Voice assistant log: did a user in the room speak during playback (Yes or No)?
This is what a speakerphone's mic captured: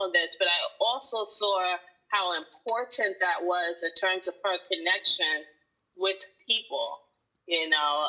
No